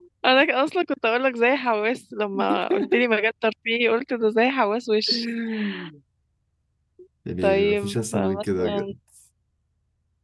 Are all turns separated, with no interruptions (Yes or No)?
No